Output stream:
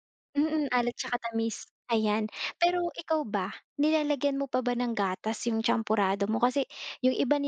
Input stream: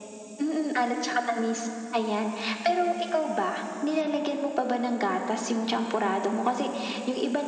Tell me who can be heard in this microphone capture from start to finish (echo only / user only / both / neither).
echo only